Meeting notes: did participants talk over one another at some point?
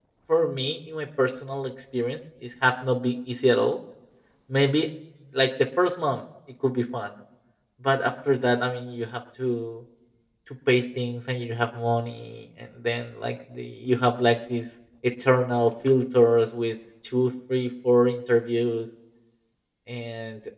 No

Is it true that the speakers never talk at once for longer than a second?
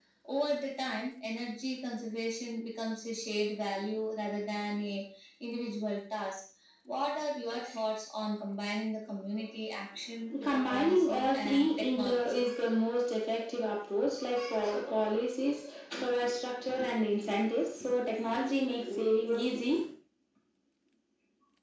No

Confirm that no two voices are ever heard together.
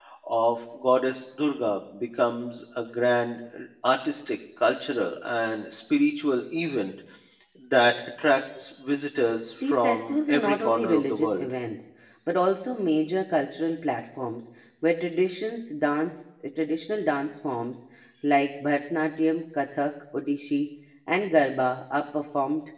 No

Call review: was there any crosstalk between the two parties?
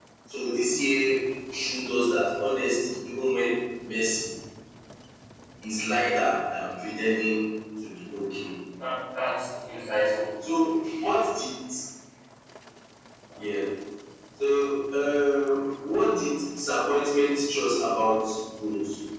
No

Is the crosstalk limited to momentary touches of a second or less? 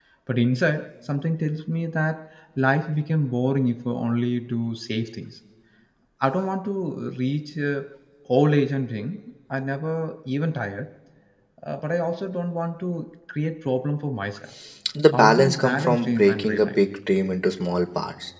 No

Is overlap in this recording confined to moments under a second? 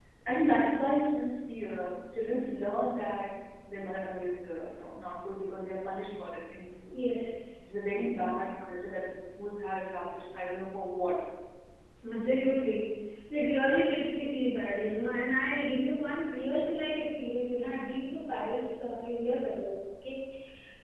Yes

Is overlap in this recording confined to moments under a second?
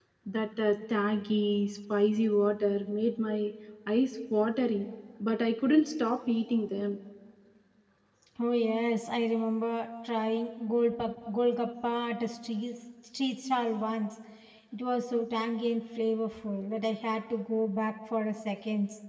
Yes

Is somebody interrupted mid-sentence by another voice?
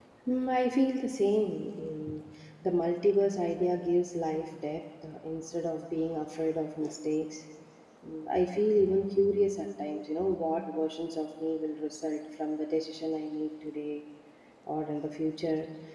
No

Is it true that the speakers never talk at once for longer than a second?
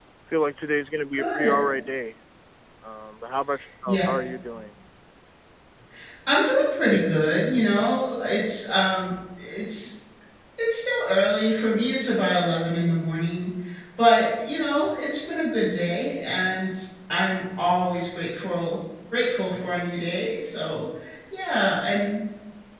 Yes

